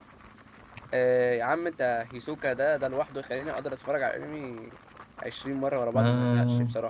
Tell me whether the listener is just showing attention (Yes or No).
No